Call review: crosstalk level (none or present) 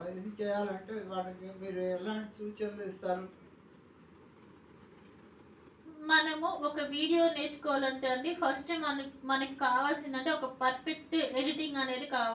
none